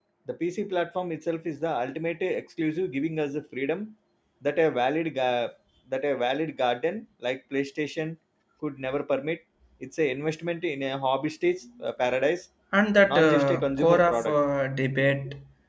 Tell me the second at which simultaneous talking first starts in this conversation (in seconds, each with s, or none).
13.1 s